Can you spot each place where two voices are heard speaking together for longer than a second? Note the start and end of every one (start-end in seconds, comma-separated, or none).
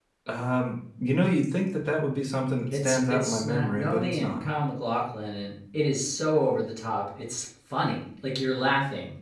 2.7-4.4